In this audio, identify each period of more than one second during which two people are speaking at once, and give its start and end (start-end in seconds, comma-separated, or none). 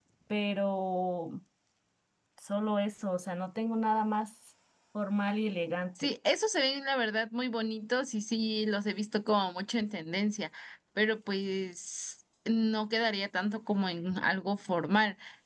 none